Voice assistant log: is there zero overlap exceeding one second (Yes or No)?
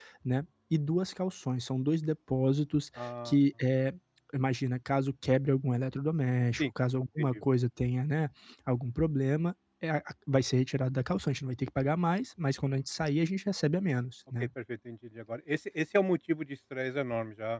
Yes